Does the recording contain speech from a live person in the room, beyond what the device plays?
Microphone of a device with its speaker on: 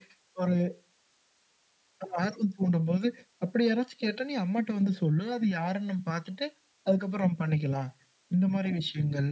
No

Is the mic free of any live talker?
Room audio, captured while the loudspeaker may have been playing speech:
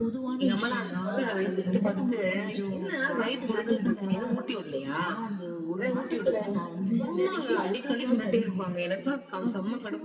Yes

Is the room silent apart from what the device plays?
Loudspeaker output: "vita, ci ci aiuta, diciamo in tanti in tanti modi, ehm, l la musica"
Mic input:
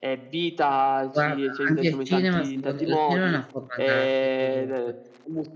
No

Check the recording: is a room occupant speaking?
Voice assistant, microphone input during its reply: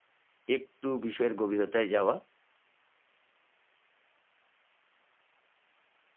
Yes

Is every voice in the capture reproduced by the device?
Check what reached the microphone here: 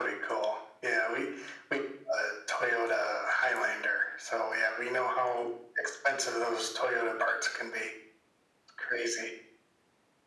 Yes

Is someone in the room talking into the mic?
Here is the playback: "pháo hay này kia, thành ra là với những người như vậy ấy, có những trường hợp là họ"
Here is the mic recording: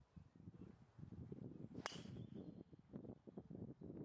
No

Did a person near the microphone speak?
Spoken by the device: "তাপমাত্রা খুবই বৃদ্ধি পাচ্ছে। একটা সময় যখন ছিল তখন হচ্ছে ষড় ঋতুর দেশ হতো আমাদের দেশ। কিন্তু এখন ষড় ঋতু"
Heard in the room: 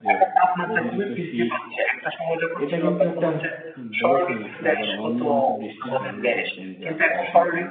Yes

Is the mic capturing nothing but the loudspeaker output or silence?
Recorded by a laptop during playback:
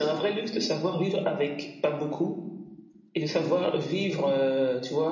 Yes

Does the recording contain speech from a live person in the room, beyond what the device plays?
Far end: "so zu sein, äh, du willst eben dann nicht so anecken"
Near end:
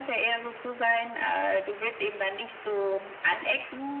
No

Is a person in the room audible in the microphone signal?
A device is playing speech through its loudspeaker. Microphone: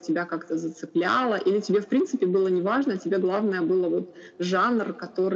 No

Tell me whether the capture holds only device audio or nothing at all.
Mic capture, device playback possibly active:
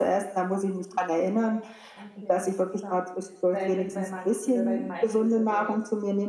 No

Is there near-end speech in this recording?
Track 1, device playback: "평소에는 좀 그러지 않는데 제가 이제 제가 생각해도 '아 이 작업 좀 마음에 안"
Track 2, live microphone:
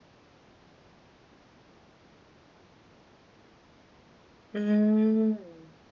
Yes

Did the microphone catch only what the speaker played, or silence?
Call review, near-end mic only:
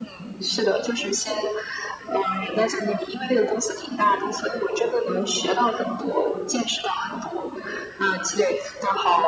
Yes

